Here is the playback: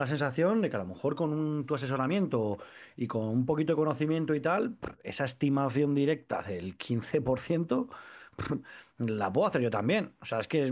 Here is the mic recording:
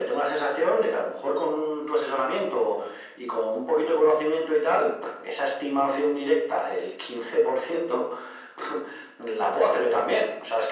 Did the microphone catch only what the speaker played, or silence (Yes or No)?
Yes